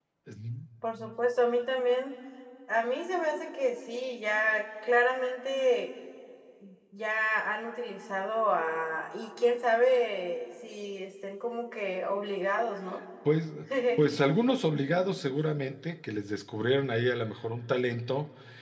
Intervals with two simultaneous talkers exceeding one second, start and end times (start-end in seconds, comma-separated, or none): none